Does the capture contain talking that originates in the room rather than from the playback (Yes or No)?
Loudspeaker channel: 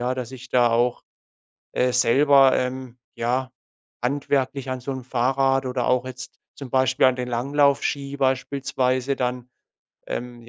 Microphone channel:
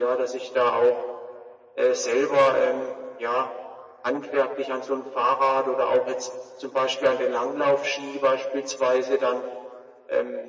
No